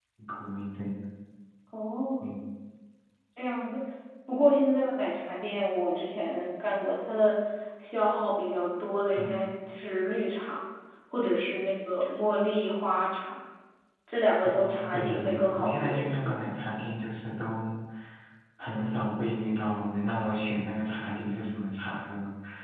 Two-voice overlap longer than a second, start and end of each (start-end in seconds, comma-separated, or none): 14.4-16.4